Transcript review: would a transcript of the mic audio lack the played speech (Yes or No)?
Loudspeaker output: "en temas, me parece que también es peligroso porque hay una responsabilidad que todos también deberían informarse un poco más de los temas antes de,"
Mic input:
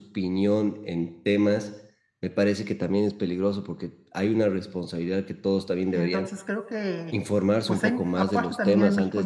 No